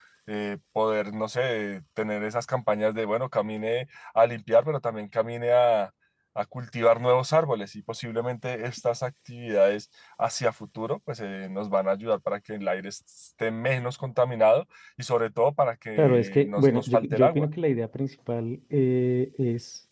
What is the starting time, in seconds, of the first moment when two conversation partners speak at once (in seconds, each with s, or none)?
16.0 s